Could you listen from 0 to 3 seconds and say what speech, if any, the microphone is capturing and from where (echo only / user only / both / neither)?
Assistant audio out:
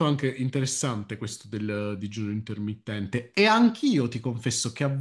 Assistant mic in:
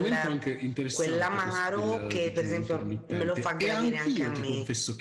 both